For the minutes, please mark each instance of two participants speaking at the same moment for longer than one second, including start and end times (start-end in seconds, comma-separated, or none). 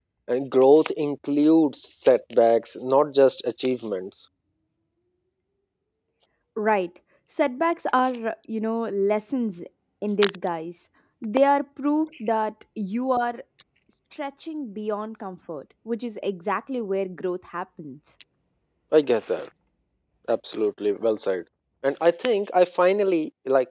none